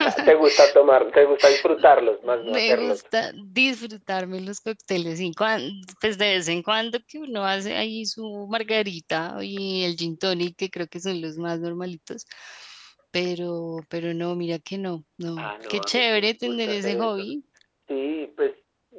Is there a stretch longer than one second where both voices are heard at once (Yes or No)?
Yes